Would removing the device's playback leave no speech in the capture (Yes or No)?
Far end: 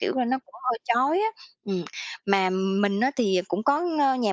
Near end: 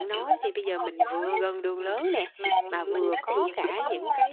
No